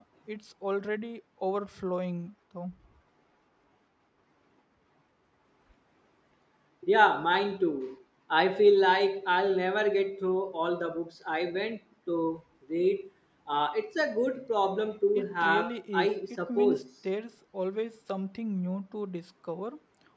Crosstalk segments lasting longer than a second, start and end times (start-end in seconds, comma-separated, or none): 15.2-16.8